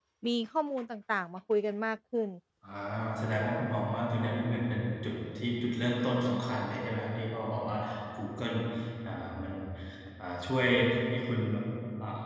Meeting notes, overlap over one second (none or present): none